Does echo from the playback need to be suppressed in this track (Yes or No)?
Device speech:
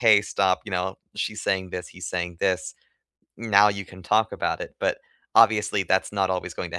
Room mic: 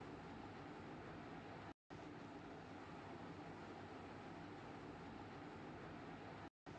No